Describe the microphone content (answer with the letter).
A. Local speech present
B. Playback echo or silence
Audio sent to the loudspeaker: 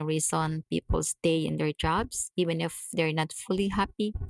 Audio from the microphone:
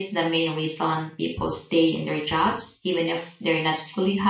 B